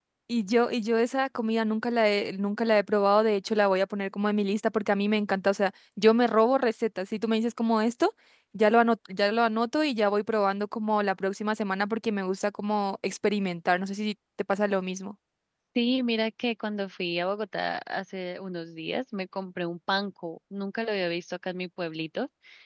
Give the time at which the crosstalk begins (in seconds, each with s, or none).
none